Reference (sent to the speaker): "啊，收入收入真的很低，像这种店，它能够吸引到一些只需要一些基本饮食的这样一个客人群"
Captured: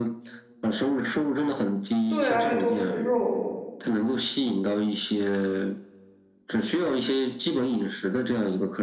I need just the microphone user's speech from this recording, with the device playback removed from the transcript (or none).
对啊，都是肉，